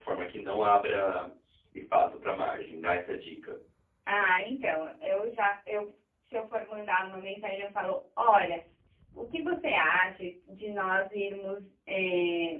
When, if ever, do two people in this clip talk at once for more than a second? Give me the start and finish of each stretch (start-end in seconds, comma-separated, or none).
none